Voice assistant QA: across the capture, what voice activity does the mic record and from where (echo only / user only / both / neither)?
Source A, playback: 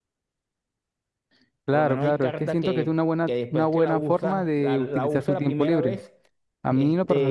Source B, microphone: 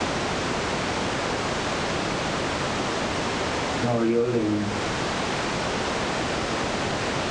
user only